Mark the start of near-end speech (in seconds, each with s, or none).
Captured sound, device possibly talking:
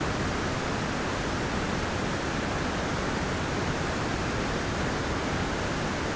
none